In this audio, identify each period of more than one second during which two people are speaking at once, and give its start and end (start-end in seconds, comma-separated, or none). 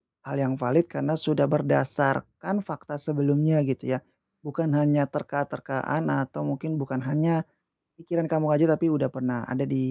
none